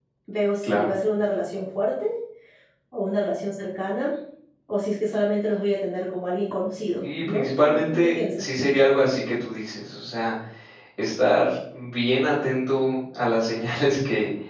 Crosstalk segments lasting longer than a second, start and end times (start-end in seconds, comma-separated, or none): 7.0-8.5